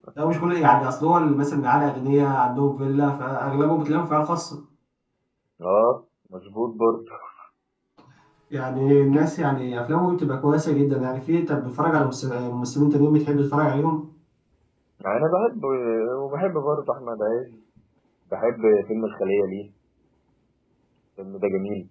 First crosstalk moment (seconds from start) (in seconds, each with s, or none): none